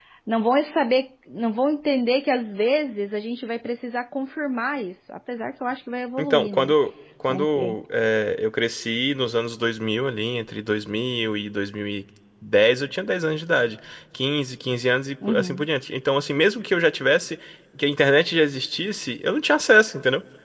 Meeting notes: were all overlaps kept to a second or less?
Yes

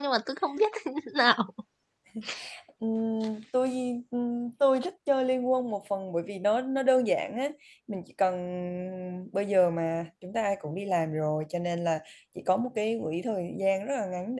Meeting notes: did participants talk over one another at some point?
No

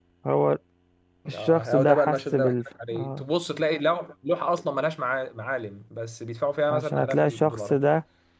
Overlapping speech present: Yes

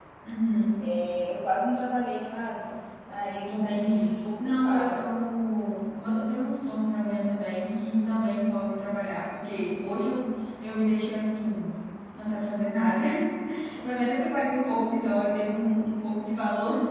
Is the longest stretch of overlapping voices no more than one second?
No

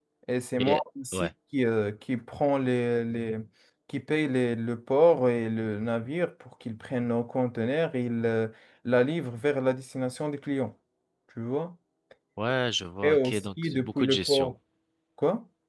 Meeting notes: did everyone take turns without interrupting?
No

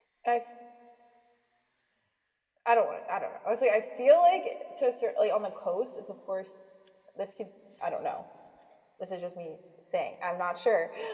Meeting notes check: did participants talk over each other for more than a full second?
No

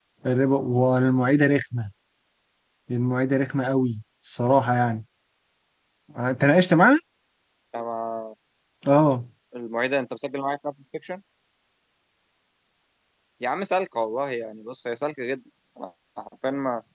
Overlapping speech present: No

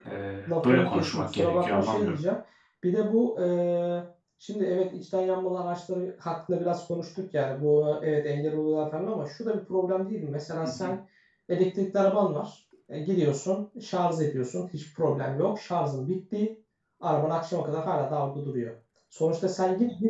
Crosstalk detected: Yes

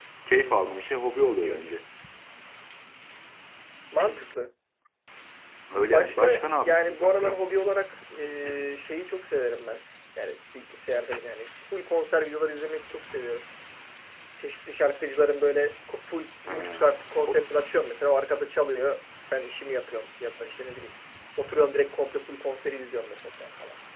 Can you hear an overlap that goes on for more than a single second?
Yes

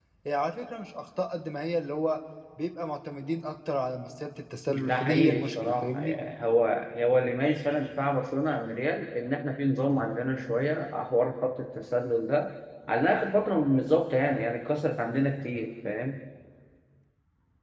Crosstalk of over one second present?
Yes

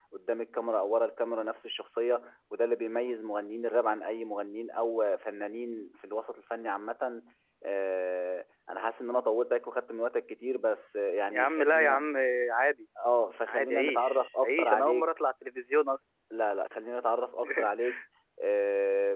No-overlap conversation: No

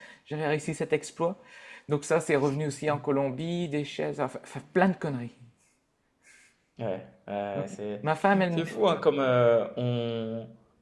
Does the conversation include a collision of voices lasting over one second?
No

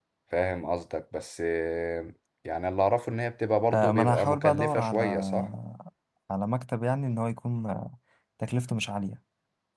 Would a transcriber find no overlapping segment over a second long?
No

